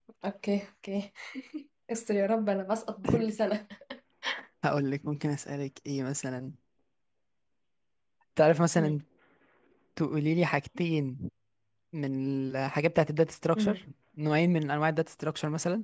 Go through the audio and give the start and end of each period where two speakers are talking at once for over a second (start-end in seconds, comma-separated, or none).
none